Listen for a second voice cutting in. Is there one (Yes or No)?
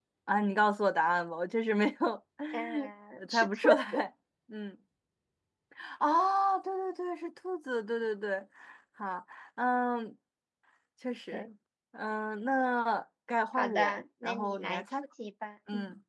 Yes